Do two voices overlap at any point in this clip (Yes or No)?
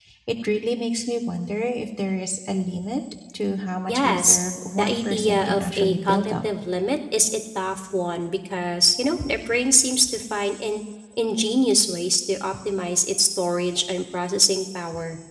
Yes